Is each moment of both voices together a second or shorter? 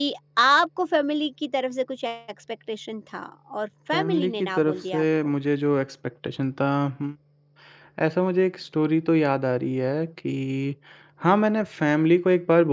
No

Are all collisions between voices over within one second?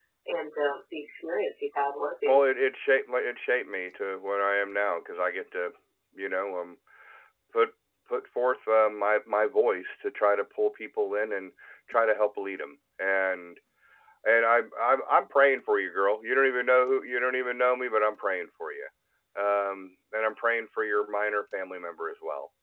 Yes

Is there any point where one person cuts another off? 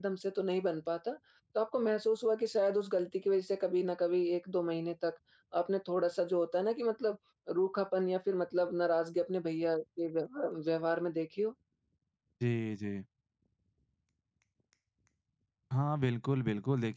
No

